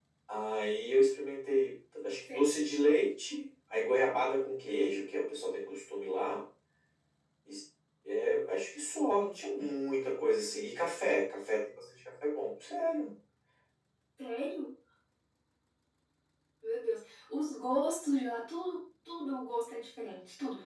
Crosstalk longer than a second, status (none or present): none